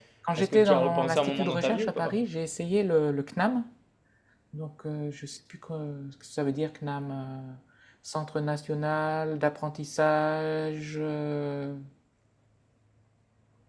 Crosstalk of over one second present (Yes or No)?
Yes